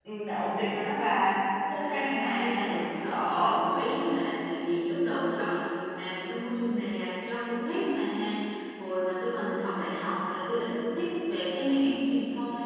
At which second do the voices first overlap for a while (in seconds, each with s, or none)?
1.7 s